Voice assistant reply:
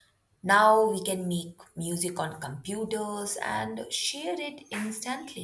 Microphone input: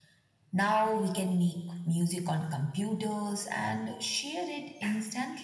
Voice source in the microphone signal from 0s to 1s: echo only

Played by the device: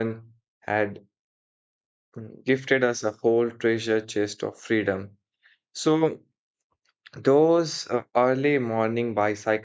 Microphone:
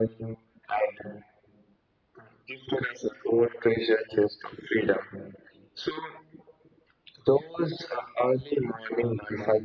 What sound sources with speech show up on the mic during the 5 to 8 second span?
echo only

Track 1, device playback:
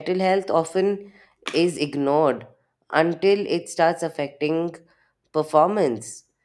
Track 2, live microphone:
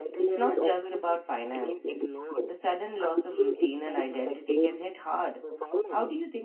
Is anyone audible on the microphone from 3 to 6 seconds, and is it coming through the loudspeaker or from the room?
both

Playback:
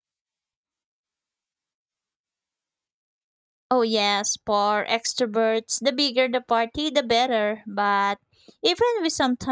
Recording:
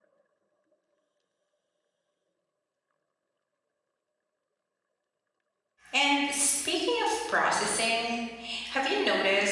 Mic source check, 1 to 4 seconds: neither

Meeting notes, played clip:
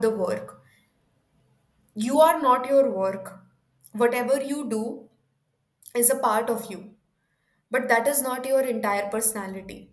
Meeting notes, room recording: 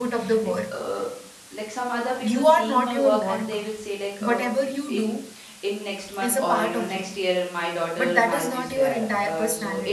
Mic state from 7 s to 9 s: both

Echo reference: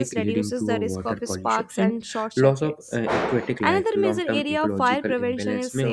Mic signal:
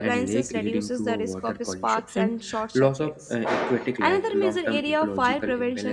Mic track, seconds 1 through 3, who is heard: echo only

